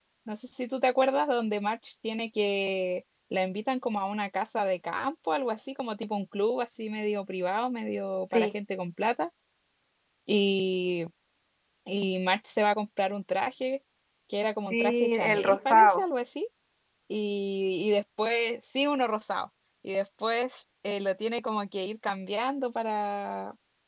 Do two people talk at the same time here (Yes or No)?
Yes